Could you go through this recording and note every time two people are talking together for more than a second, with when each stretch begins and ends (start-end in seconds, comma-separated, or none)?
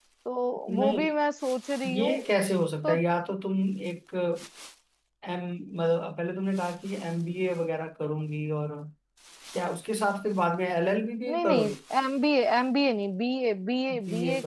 none